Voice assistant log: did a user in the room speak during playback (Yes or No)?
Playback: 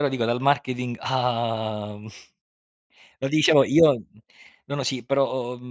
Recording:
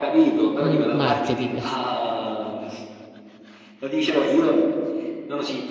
Yes